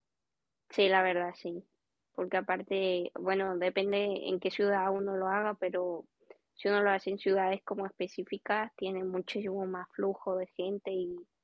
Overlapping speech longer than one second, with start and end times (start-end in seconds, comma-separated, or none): none